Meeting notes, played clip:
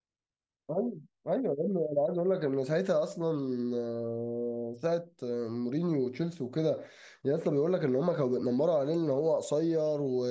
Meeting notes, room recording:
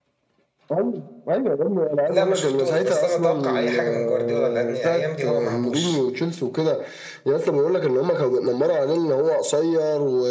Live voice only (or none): لا ما شفتوش بس انا اتوقع اي حاجه من جوارديولا لان الايام دي هو مهبوش